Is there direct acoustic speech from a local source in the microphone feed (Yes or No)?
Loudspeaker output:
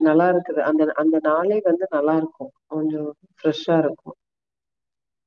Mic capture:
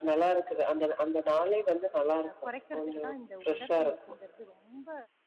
Yes